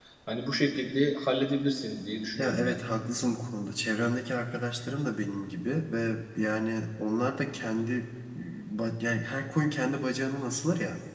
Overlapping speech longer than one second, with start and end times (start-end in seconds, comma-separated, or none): none